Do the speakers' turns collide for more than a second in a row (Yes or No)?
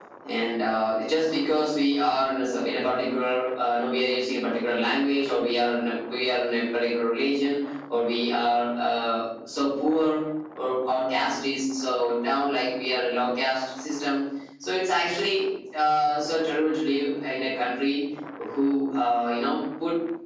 No